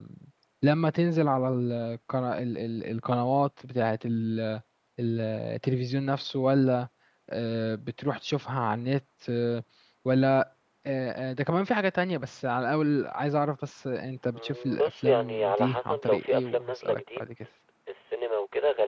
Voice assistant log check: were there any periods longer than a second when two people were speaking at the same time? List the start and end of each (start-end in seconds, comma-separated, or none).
14.3-17.2